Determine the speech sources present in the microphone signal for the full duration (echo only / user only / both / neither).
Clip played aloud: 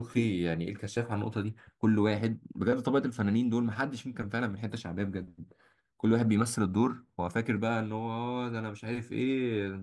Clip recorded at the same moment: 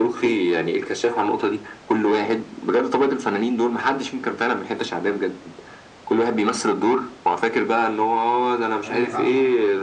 both